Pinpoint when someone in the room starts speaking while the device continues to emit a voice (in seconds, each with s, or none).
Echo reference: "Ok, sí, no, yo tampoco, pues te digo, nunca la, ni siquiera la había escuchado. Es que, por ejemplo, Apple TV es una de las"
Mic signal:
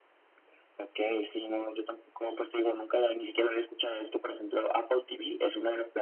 none